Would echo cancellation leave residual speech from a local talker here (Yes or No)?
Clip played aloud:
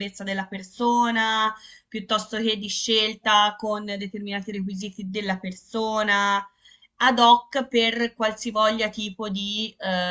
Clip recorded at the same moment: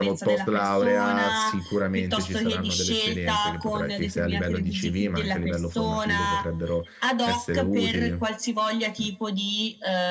Yes